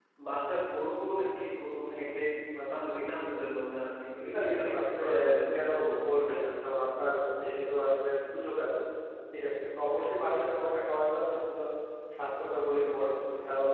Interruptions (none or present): present